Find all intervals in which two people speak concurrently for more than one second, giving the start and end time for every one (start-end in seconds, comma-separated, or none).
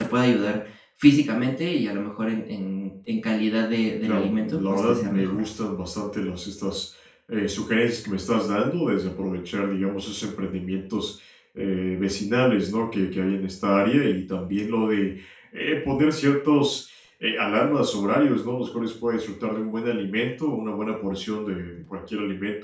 4.0-5.4